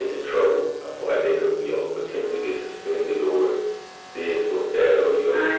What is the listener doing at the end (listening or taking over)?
listening